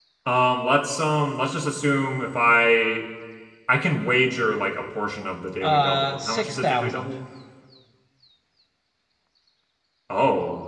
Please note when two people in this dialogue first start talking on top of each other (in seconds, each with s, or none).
5.6 s